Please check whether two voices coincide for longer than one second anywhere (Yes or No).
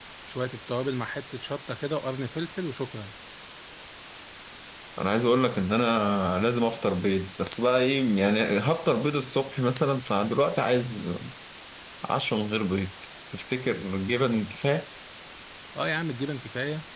No